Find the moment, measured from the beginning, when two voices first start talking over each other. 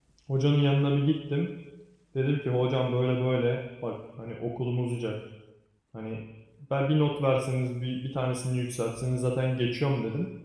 none

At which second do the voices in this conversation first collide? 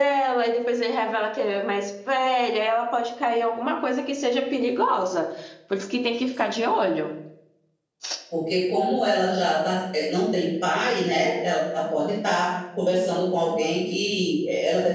none

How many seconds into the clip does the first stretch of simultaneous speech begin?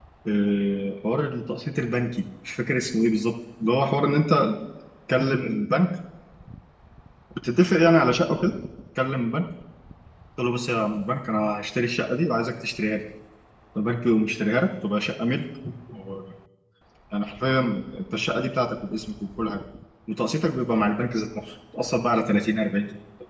none

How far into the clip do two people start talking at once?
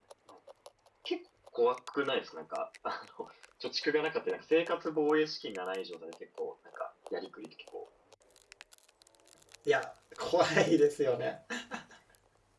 none

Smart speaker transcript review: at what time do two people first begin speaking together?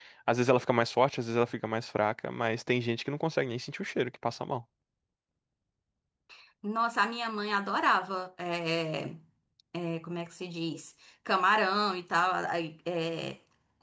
none

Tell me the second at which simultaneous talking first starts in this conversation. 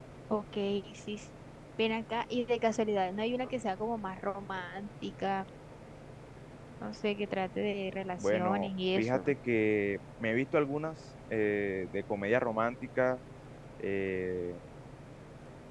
8.1 s

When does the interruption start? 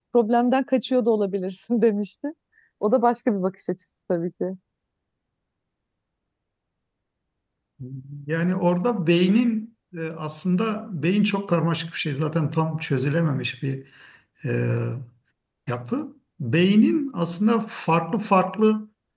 none

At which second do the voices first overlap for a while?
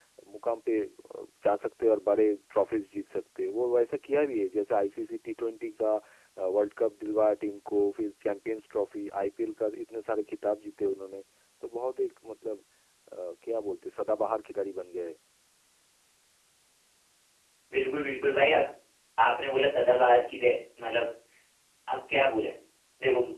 none

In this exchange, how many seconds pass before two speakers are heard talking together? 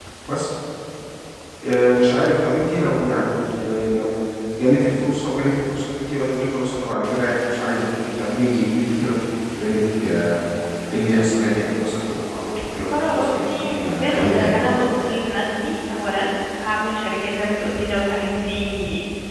12.9 s

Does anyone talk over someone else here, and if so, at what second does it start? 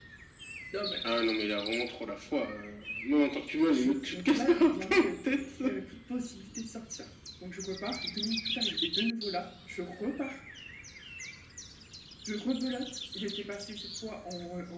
3.7 s

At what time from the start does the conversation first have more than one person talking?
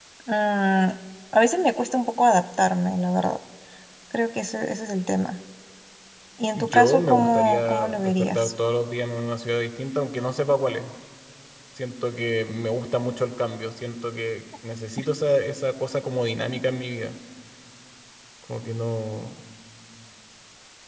6.5 s

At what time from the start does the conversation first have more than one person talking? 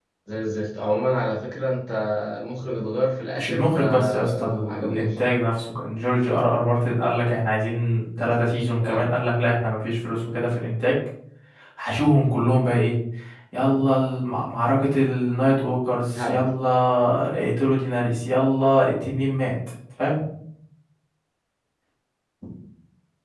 3.4 s

